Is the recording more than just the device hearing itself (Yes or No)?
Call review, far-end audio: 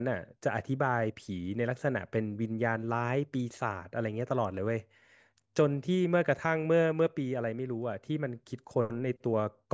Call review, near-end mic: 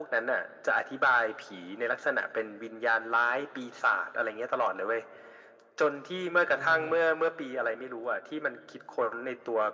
Yes